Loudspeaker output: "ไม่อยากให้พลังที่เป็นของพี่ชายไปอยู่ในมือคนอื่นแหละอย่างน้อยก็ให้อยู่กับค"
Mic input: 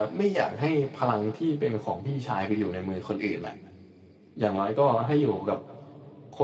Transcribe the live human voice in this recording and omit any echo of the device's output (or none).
none